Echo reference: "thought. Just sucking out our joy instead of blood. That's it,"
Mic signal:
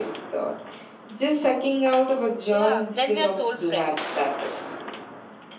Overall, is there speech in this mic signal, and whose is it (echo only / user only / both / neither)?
both